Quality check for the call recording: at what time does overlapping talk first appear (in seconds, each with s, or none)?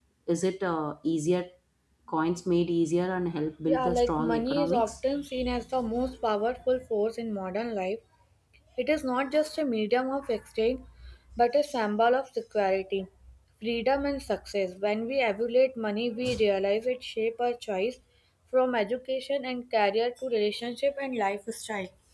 3.7 s